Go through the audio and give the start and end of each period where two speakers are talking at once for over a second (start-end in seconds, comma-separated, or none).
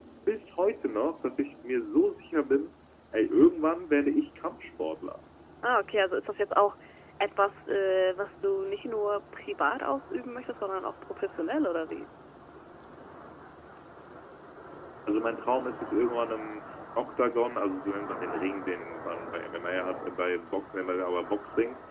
none